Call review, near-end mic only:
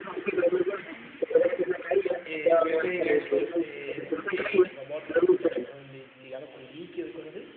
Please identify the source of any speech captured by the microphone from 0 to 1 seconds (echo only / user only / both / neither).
echo only